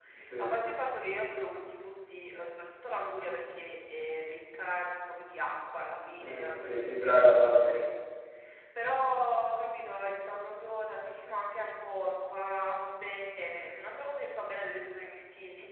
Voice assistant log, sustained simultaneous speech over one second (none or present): present